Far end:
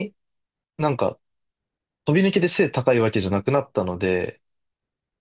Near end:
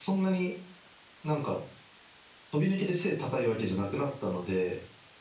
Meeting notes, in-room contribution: none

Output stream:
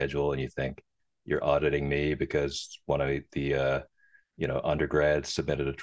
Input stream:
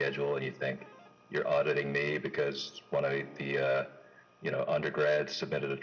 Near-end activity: none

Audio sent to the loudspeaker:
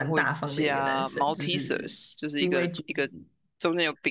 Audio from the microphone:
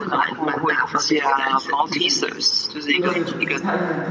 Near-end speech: present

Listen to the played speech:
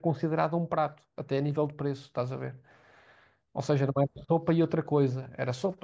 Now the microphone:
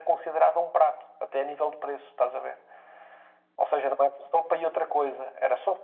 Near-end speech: none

